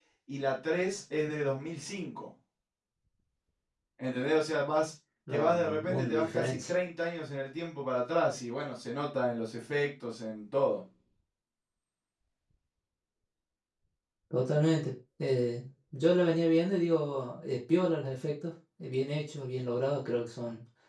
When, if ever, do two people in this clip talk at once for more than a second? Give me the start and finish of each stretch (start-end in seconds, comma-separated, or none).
5.3-6.7